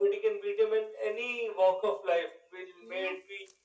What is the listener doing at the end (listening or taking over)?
listening